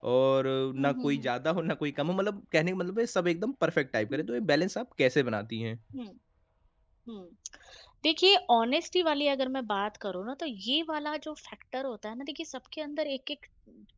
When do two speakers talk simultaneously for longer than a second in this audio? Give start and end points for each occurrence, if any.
none

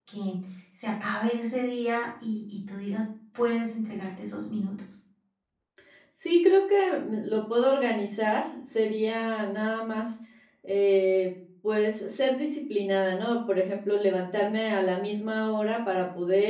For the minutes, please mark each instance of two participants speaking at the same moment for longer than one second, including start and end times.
none

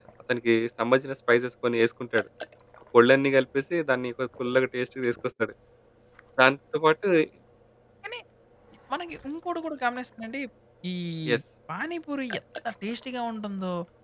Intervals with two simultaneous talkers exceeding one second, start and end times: none

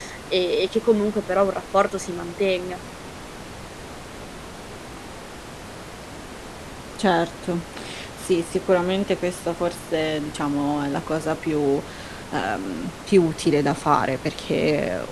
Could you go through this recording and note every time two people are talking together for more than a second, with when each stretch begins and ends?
none

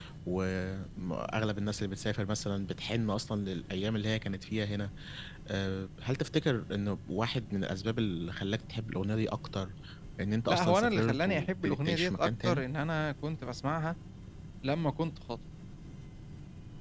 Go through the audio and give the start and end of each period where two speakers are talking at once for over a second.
10.5-12.6

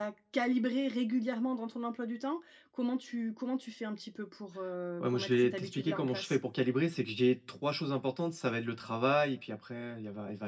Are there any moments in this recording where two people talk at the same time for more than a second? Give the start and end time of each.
5.0-6.3

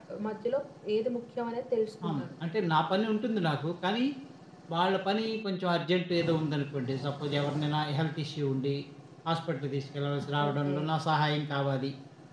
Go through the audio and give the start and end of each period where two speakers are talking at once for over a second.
none

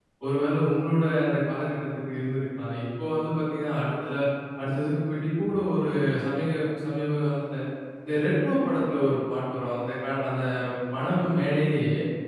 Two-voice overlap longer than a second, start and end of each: none

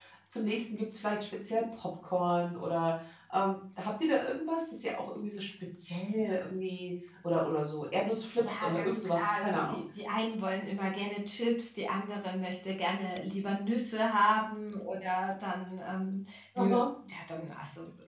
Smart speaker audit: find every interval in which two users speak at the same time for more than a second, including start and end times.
8.4-9.8

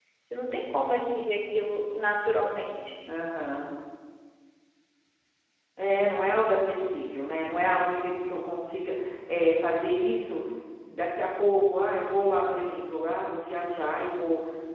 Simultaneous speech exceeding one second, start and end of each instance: none

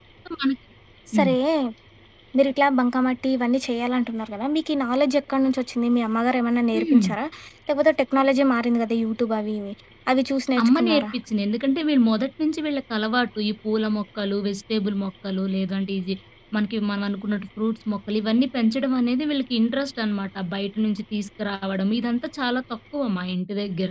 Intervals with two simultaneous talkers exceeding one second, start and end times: none

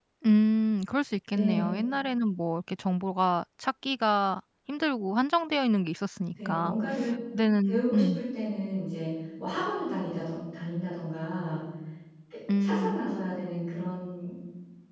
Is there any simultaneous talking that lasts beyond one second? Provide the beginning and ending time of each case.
none

